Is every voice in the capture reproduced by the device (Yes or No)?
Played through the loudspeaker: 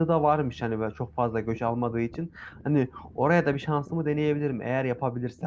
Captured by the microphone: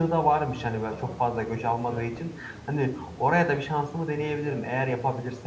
No